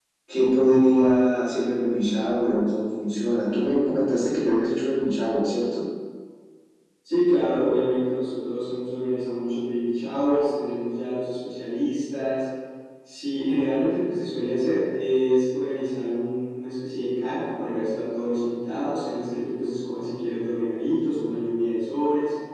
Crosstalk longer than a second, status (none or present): none